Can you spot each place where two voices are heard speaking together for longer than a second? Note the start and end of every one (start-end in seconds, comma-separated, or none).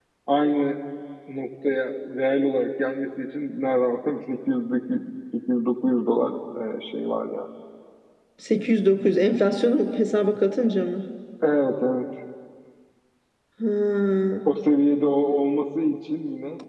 none